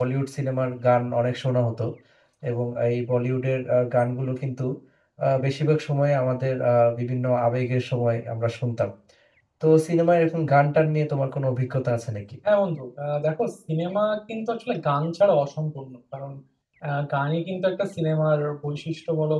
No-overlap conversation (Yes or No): Yes